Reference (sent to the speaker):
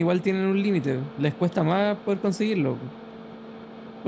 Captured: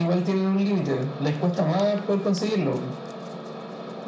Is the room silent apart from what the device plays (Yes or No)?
Yes